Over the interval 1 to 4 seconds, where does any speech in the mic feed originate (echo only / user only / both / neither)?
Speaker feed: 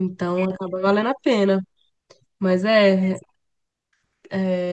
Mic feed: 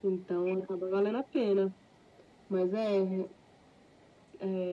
echo only